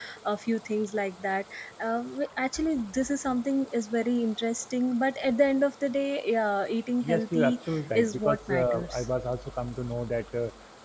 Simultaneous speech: Yes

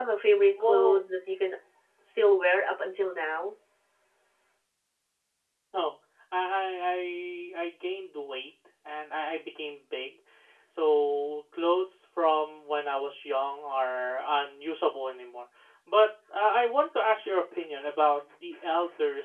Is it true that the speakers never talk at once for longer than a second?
Yes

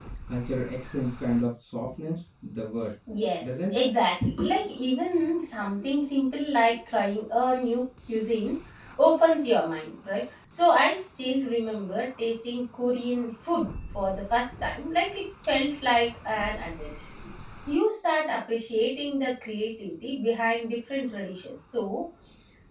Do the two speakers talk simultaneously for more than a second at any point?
No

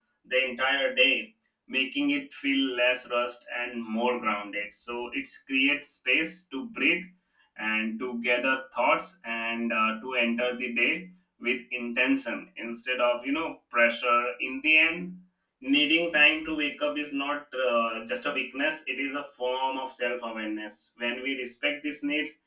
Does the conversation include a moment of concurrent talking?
No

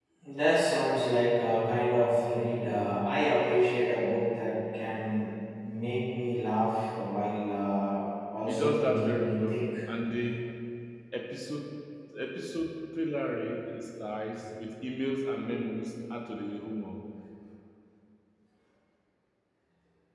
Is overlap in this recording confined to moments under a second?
No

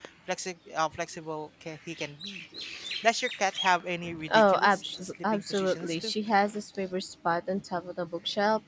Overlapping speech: Yes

